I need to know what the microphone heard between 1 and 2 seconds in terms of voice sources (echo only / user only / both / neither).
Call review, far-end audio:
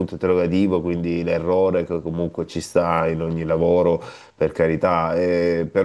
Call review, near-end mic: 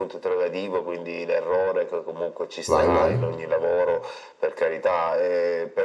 echo only